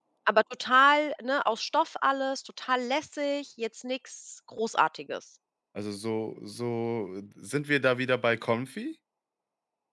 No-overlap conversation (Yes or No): Yes